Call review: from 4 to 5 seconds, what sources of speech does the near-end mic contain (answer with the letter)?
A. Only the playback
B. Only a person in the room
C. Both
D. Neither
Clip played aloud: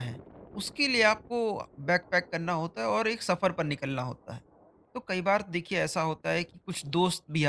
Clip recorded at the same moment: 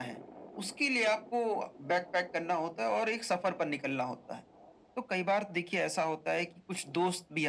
A